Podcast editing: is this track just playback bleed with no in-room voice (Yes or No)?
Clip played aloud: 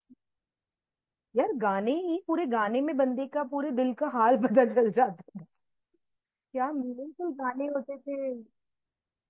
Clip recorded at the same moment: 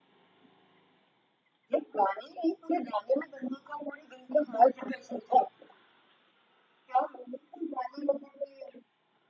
Yes